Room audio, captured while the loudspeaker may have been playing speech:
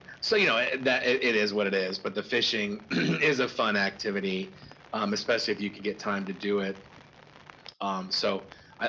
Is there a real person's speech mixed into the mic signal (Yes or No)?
No